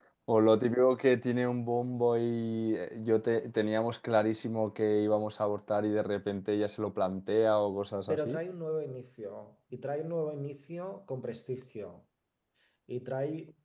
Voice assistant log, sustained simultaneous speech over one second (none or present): none